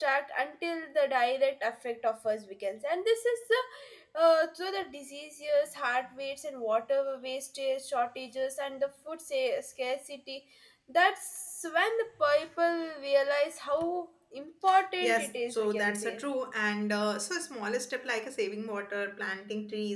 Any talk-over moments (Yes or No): Yes